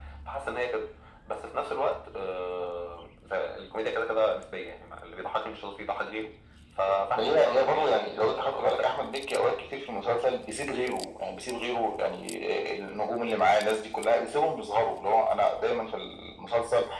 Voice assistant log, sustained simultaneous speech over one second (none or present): present